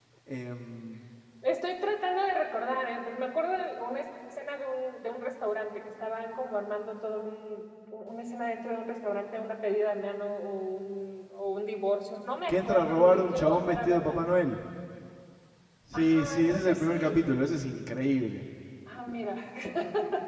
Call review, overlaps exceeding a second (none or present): present